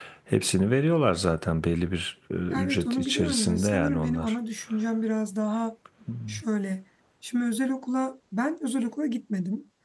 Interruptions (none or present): present